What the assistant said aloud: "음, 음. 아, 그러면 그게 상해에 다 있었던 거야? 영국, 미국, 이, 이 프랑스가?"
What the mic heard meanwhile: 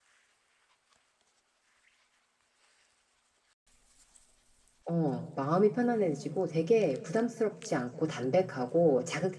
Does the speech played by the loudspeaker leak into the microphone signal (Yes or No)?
No